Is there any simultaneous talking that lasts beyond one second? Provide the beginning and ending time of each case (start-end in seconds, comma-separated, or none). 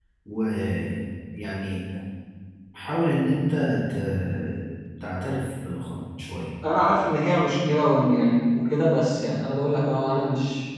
none